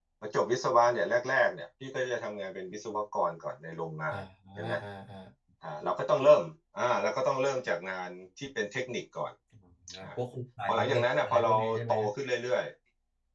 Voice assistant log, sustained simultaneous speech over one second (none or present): present